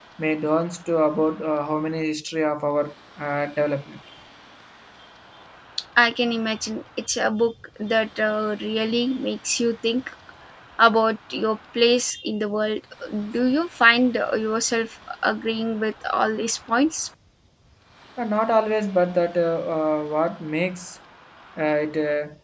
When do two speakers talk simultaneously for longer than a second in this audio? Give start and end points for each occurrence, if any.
none

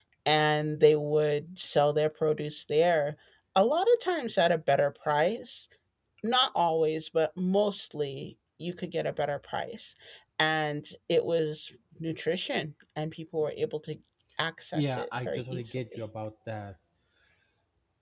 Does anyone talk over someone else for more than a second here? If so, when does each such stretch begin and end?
14.7-16.0

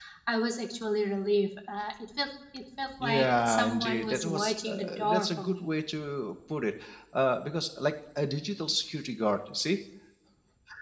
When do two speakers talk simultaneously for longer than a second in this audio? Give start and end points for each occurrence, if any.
3.0-5.7

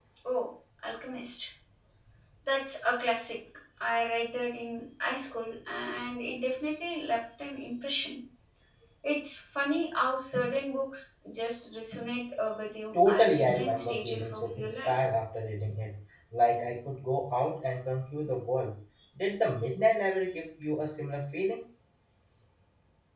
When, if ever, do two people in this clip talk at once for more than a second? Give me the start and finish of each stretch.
12.9-15.0

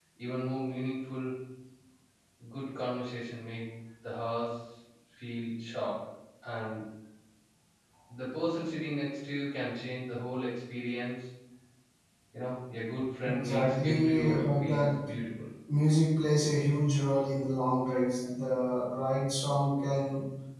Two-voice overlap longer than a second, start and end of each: 13.2-15.1

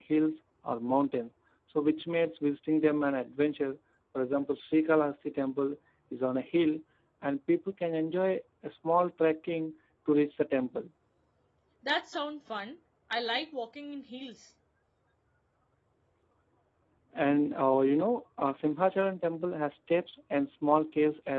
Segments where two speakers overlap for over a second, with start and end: none

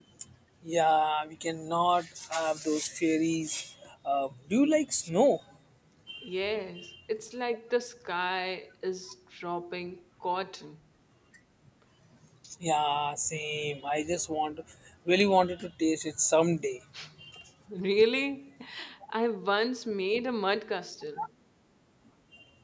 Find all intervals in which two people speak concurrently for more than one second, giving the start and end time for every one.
none

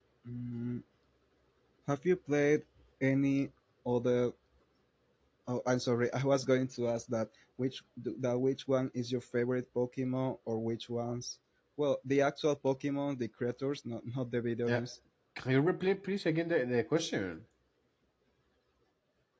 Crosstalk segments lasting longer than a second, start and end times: none

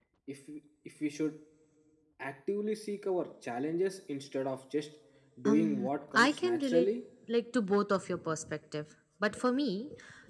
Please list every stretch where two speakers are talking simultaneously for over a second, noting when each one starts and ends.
5.5-6.9

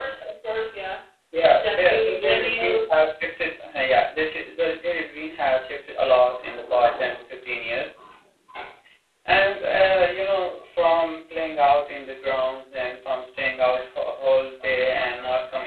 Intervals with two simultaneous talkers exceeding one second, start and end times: 1.6-2.8

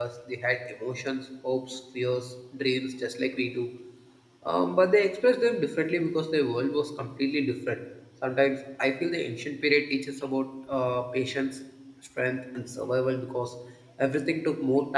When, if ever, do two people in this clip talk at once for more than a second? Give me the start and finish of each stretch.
none

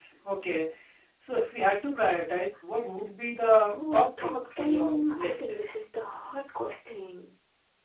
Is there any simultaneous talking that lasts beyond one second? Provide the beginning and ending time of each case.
3.7-5.4

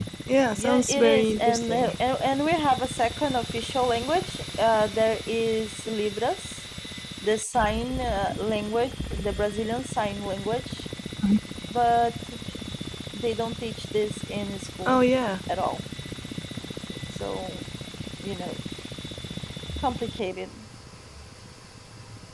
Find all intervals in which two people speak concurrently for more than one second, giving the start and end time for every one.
0.6-1.9

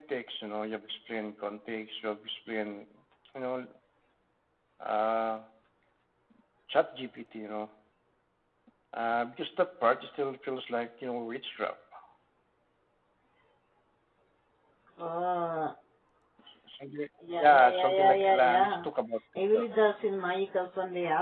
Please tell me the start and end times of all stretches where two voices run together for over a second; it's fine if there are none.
17.4-18.9

